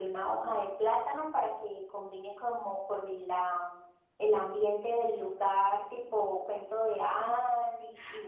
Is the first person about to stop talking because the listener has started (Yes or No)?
Yes